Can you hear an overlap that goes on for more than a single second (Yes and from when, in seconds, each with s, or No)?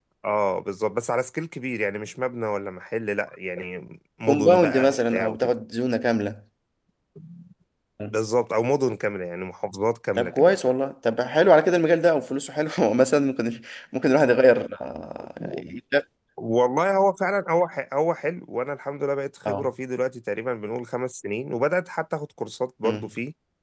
Yes, from 4.3 s